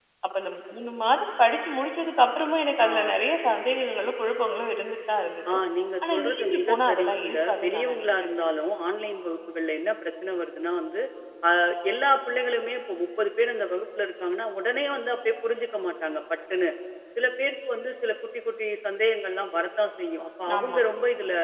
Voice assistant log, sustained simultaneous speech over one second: present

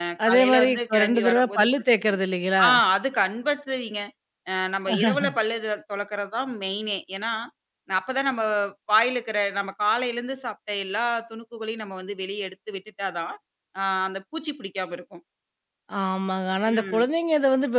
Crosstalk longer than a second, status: present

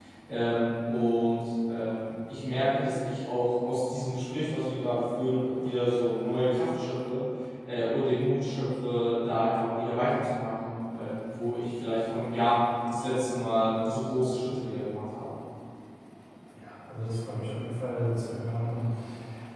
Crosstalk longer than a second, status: none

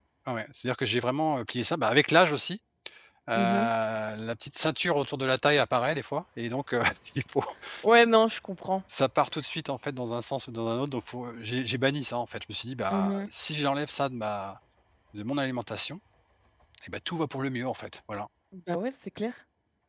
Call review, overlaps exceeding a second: none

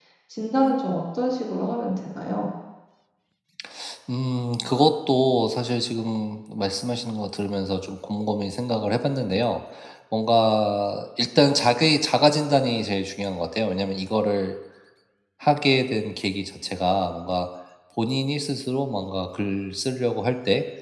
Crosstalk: none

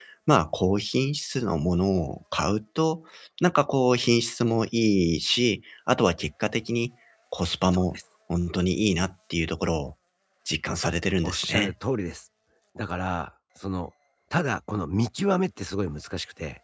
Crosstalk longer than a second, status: none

